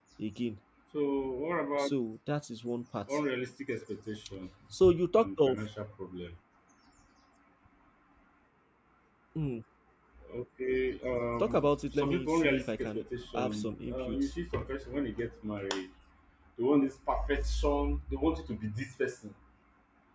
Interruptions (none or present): present